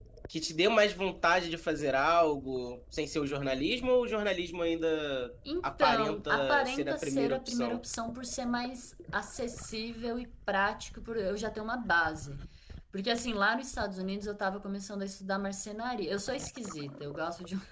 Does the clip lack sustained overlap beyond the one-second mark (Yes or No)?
No